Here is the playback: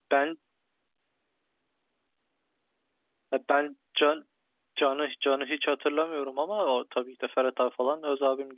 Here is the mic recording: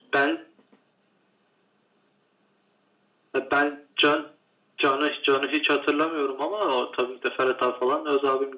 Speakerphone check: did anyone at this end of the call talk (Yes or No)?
No